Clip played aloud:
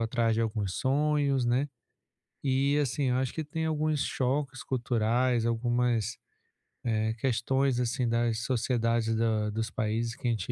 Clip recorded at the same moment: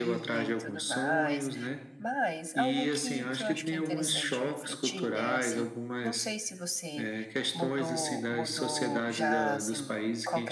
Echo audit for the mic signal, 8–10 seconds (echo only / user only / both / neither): both